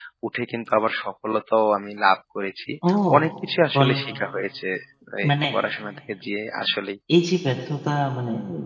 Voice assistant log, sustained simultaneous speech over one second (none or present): none